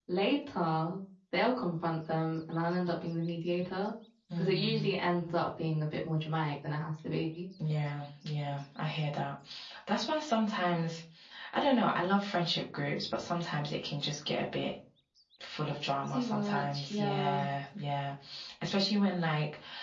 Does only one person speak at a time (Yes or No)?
No